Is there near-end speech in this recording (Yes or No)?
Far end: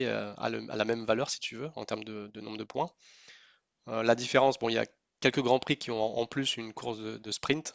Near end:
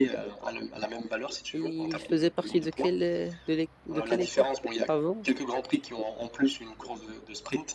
Yes